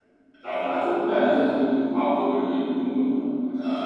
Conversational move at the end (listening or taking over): taking over